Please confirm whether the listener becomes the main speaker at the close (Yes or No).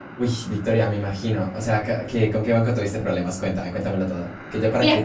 No